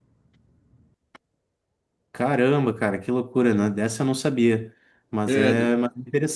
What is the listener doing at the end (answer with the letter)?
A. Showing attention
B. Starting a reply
A